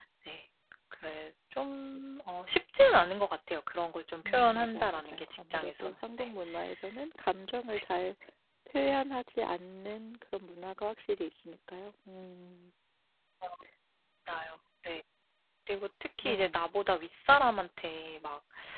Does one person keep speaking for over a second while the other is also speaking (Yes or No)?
Yes